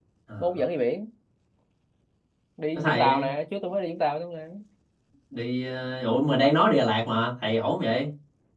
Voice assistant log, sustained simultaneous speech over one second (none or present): none